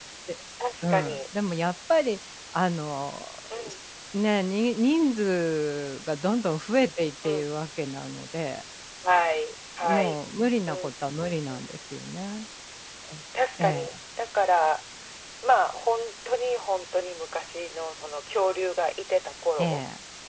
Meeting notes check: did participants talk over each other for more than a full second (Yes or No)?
No